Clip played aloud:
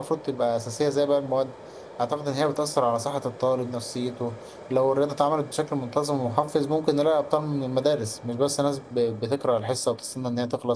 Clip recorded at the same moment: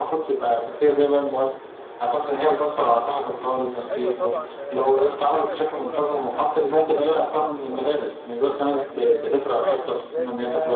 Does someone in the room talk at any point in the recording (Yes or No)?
Yes